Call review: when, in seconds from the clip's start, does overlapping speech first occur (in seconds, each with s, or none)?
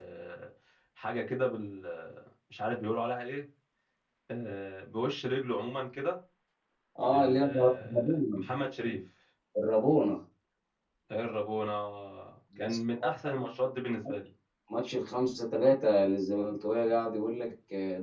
7.1 s